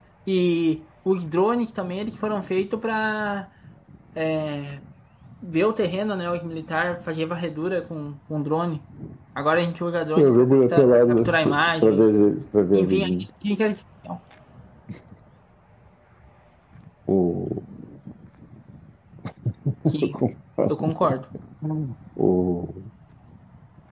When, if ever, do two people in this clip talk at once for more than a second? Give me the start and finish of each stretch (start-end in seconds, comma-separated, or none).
10.2-12.0